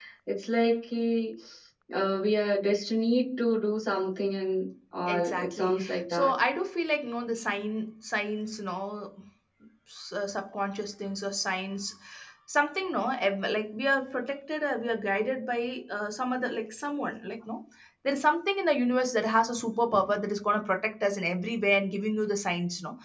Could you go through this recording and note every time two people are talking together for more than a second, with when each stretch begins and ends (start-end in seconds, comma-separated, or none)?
5.1-6.3